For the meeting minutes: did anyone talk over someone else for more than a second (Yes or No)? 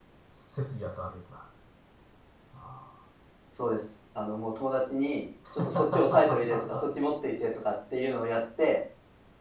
Yes